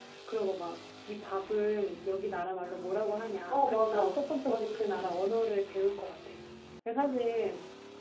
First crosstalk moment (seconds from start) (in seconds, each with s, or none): 3.5 s